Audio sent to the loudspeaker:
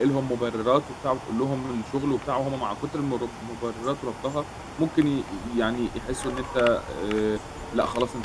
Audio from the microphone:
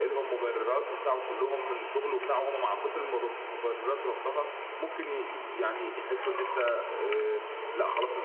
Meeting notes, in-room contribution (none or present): none